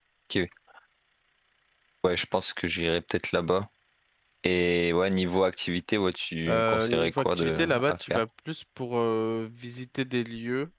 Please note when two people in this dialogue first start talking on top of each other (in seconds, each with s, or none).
6.5 s